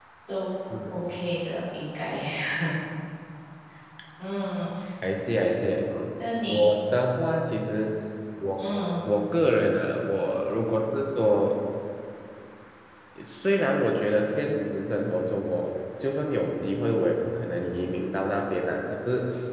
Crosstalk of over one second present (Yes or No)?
No